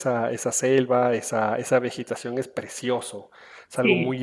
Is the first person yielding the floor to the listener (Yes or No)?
No